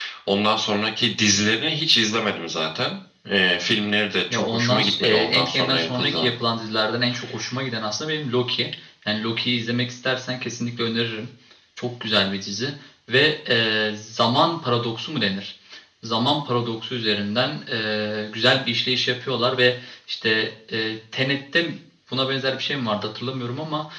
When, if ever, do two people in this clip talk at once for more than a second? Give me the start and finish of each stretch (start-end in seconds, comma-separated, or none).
4.3-6.3